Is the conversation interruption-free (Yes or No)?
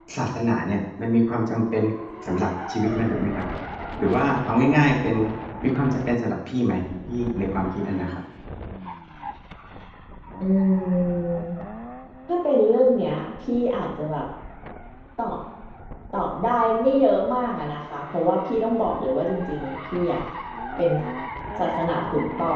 Yes